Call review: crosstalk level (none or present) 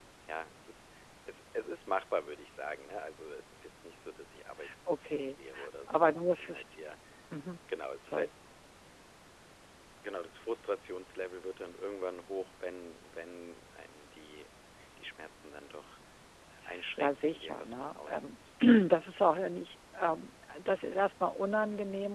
present